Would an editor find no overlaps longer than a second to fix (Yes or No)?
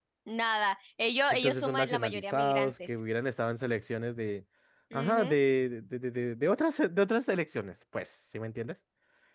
No